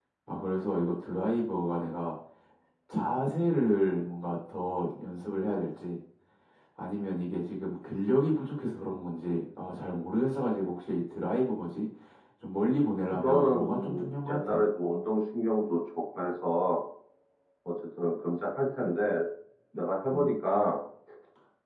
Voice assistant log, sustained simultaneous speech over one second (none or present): present